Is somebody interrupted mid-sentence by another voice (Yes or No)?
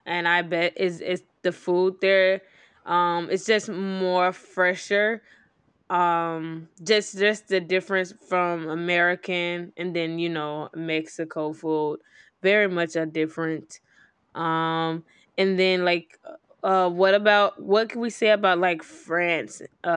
No